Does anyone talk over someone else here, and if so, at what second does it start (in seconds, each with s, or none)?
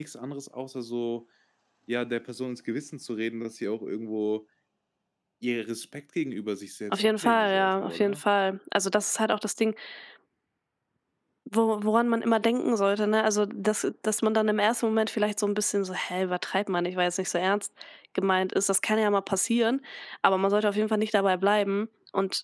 6.9 s